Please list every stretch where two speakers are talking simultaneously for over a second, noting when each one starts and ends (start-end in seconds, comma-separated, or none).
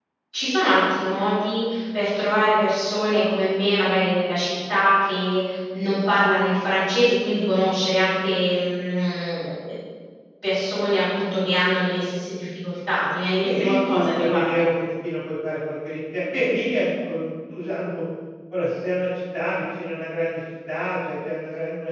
13.3-14.7